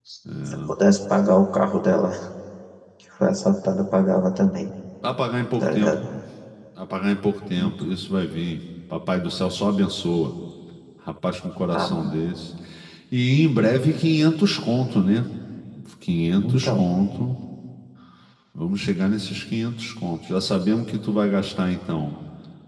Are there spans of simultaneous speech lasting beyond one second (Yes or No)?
No